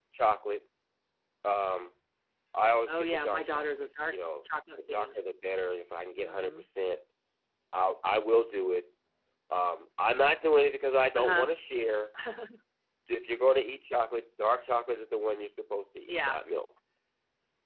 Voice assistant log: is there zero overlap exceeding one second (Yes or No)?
No